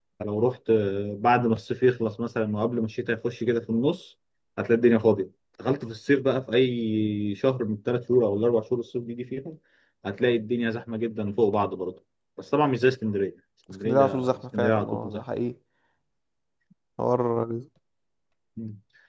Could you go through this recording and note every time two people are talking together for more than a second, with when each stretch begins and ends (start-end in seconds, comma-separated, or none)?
13.8-15.2